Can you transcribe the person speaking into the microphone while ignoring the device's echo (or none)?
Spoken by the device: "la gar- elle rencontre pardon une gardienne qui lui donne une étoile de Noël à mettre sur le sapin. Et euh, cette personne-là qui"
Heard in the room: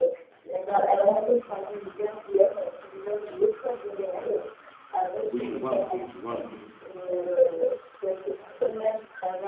Oui, je vois un peu, je vois un peu.